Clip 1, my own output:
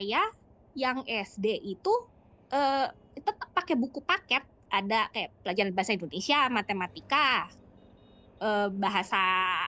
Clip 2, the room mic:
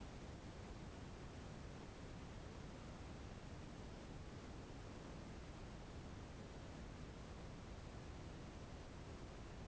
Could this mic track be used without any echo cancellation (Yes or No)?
Yes